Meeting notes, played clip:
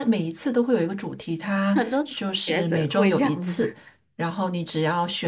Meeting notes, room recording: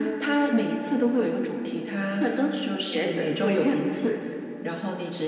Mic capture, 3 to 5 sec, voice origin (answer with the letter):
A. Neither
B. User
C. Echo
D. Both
C